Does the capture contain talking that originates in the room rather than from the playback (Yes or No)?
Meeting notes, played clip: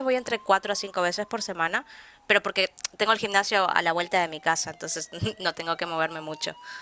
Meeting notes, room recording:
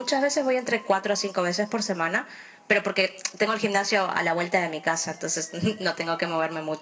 No